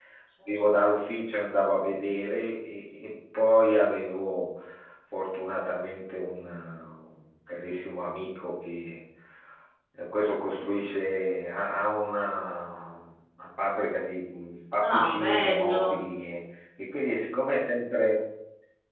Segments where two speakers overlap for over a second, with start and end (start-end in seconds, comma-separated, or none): 14.8-16.1